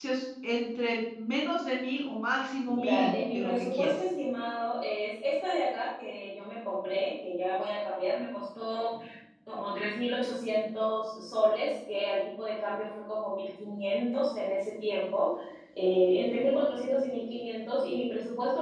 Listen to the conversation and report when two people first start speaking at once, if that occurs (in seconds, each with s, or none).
2.7 s